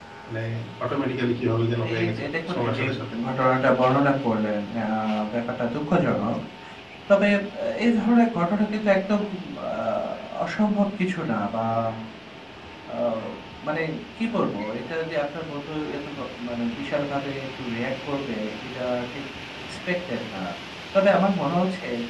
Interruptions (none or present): present